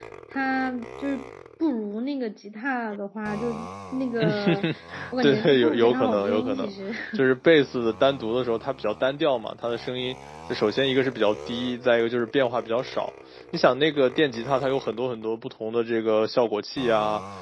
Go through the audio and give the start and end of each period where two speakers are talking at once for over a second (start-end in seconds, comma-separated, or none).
5.2-6.7